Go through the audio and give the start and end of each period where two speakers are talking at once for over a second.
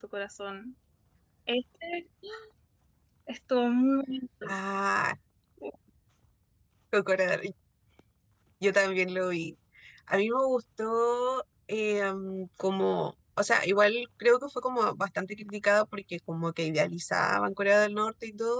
none

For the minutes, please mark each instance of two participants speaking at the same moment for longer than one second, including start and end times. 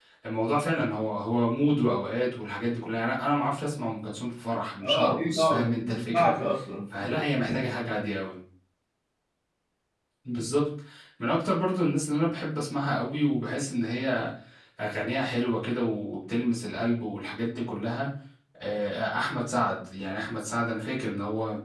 4.8-6.3

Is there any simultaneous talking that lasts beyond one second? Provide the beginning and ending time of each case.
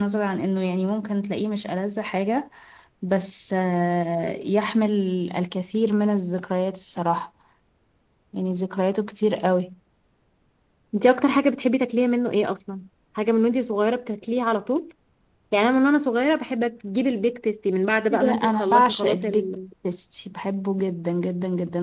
18.1-19.5

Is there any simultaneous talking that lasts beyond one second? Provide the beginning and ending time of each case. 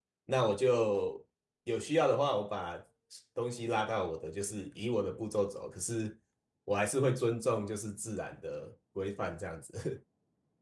none

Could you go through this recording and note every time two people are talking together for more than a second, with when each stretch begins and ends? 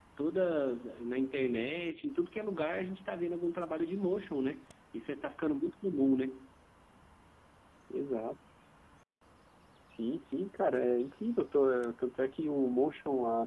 none

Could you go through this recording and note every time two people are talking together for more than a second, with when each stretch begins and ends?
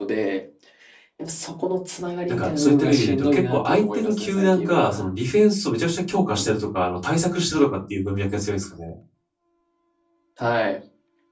2.3-5.0

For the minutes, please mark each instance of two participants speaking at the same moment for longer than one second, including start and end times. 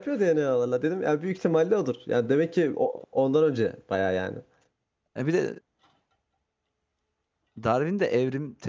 none

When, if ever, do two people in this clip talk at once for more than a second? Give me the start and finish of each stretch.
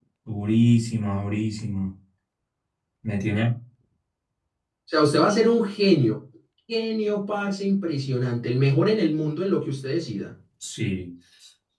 none

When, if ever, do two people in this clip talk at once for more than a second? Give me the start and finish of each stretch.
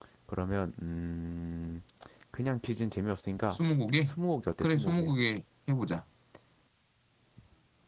none

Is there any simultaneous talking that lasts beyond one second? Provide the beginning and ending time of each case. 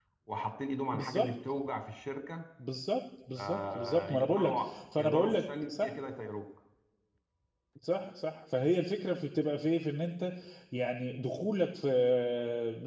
3.4-5.9

